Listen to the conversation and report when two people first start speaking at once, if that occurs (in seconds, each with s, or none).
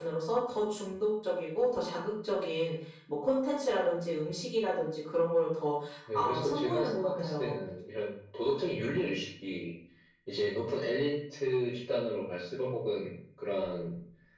6.1 s